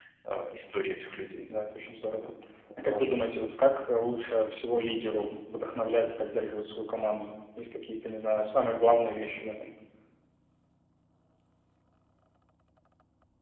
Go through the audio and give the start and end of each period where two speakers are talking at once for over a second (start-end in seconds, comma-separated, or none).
none